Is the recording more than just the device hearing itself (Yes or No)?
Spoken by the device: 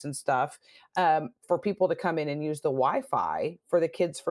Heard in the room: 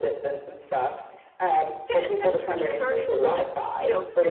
Yes